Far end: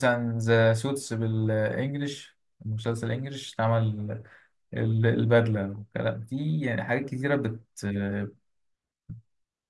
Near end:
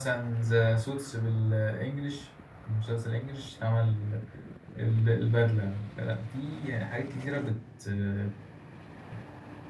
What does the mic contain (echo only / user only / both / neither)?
echo only